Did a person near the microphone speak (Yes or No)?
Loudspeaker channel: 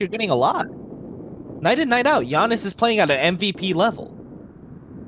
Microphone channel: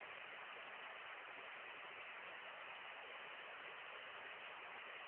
No